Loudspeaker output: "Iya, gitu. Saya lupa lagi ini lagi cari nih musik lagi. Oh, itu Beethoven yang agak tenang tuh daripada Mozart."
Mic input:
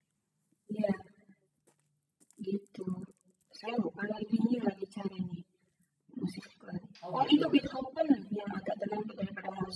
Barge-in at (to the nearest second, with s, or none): 7 s